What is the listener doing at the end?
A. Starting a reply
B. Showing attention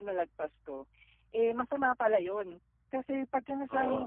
B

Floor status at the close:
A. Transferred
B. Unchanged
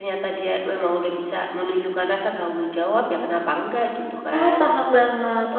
A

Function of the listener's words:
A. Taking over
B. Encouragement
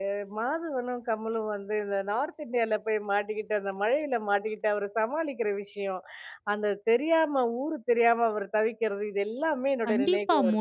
A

